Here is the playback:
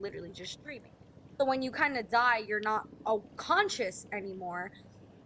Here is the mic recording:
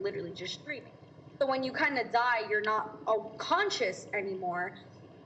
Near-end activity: none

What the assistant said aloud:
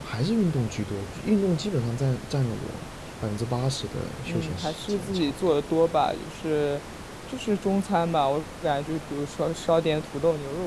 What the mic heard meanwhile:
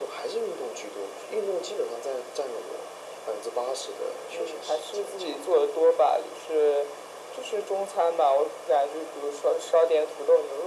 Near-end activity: none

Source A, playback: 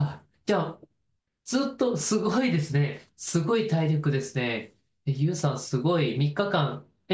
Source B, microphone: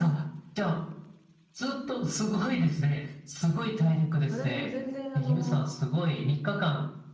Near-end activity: present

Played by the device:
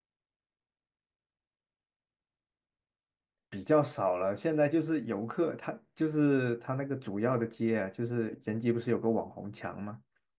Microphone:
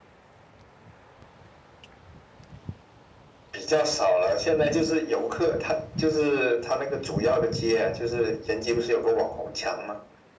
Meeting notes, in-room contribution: none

